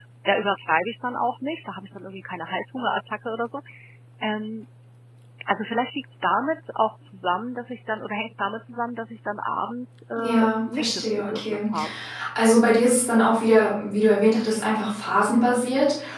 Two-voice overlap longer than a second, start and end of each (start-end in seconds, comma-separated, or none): 10.2-11.7